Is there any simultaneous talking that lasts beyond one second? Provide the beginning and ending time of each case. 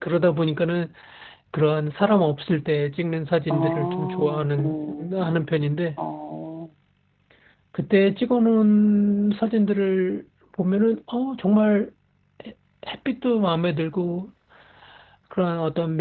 3.5-5.5

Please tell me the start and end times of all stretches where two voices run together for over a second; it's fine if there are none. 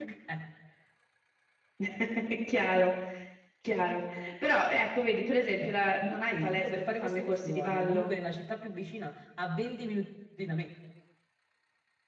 5.6-8.1

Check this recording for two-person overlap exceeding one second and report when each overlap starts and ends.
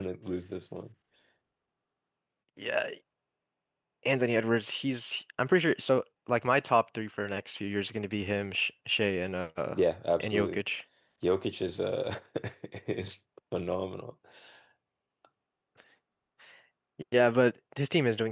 none

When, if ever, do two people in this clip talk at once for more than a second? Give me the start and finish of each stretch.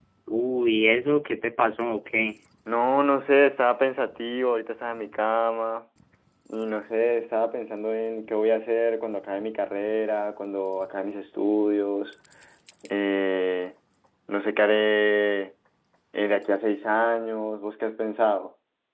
none

